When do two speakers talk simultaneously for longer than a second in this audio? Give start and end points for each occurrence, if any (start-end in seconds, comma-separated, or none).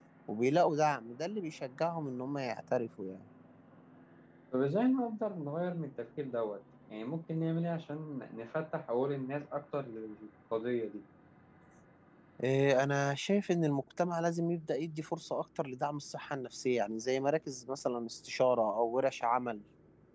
none